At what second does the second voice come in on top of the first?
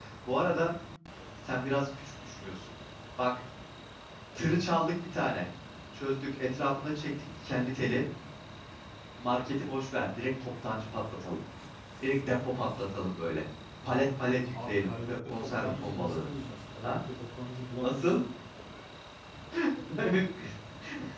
14.6 s

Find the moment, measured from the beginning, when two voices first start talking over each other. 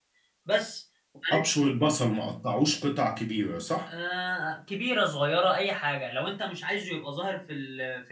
none

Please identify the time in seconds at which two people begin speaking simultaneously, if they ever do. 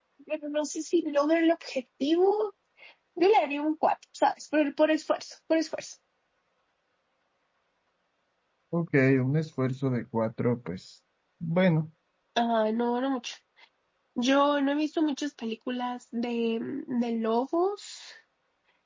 none

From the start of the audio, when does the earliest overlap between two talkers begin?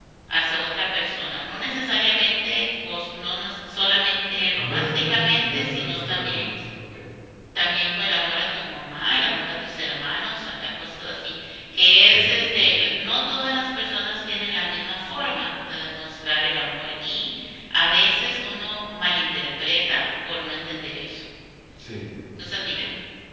4.6 s

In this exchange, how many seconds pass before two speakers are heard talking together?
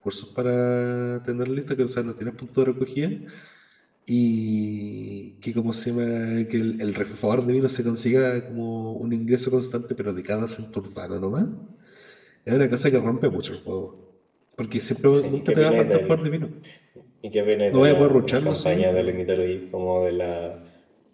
15.1 s

